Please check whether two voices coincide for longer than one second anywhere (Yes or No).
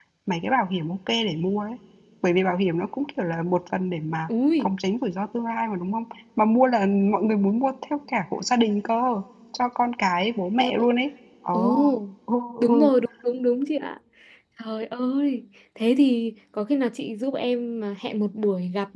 No